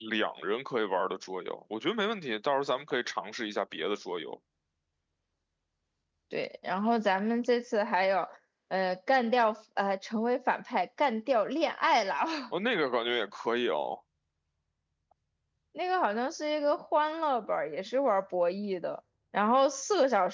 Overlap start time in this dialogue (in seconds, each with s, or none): none